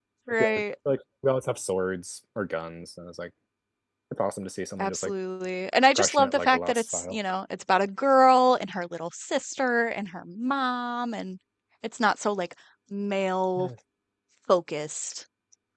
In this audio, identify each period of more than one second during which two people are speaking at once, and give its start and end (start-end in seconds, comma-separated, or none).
6.0-7.2